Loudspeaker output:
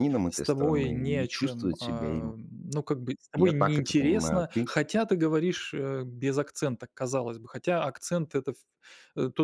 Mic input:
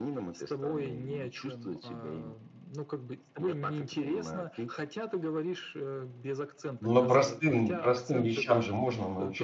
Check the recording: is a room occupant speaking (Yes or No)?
Yes